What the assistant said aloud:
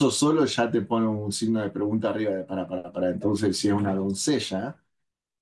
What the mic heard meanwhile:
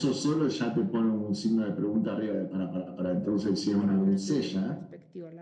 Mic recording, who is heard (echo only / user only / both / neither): both